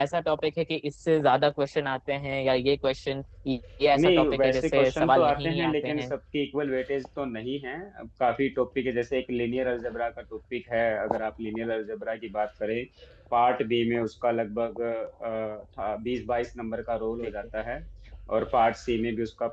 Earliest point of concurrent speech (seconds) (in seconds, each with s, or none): 3.9 s